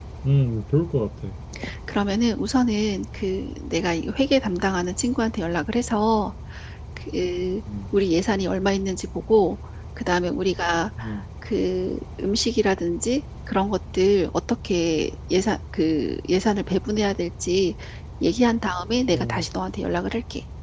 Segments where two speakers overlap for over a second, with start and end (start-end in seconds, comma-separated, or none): none